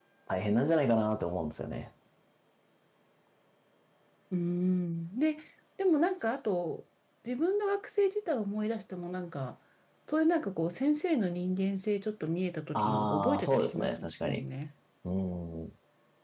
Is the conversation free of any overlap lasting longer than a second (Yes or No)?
No